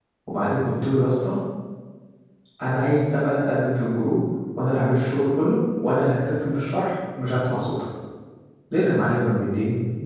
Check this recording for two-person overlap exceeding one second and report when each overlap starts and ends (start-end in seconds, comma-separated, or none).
none